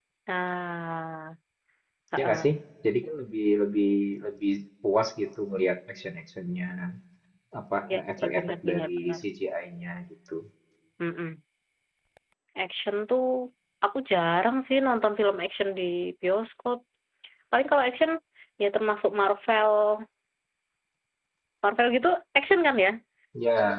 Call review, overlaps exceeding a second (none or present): present